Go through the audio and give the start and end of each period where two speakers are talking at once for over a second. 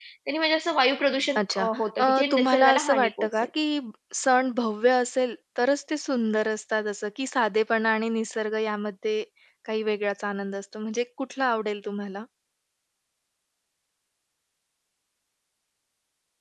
2.0-3.5

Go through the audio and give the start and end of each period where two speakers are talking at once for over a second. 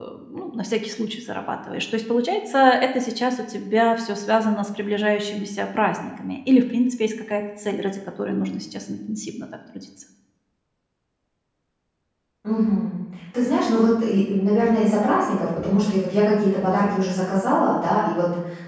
none

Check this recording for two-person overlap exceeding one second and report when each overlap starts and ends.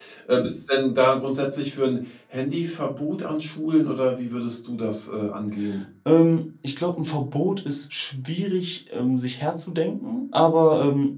none

